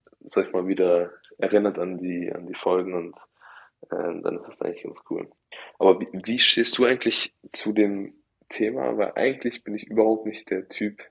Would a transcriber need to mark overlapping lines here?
No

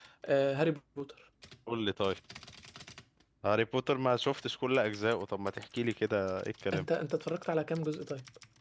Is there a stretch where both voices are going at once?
No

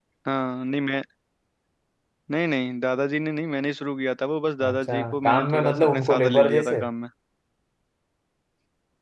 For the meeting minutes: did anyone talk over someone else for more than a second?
Yes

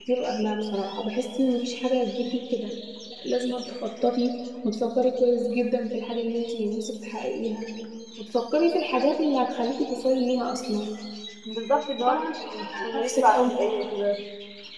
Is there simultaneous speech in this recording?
Yes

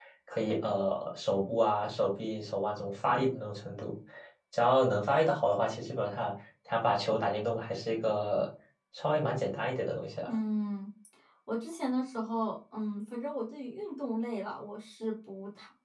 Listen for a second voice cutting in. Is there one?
No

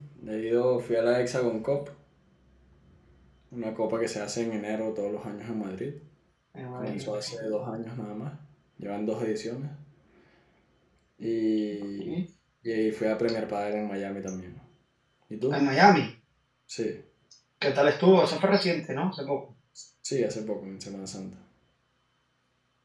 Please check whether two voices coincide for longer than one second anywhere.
No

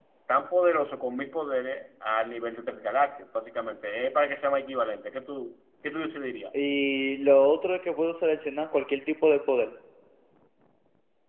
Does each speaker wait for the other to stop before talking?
Yes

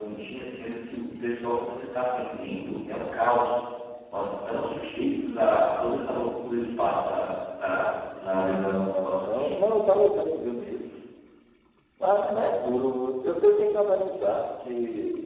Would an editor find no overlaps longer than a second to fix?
No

